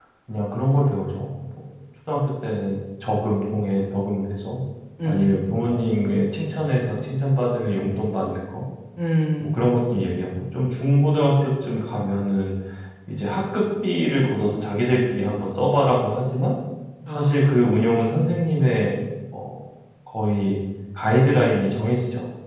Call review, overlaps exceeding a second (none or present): none